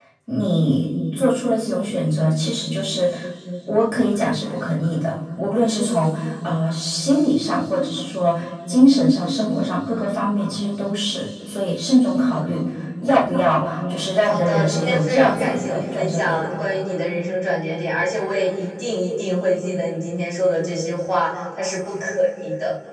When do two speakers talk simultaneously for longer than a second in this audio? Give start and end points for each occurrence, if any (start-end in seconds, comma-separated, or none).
14.2-16.4